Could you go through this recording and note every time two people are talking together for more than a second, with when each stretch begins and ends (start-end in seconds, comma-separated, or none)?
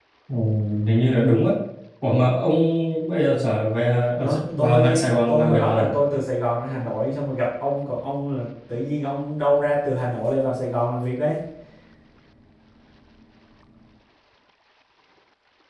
4.2-5.9